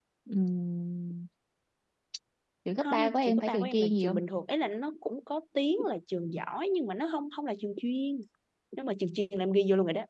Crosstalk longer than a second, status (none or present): present